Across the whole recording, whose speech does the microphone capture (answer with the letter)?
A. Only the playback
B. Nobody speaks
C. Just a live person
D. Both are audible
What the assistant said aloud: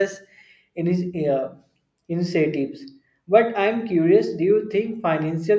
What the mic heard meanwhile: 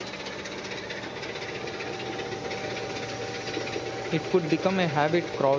C